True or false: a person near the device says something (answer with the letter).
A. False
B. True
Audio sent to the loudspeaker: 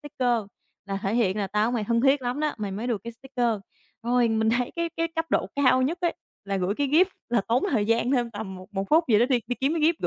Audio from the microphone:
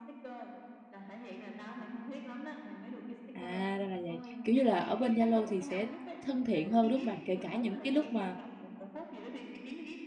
B